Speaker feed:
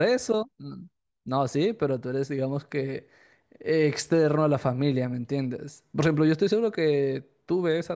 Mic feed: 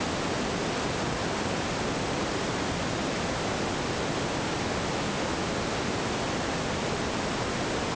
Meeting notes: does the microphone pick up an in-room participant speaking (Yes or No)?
No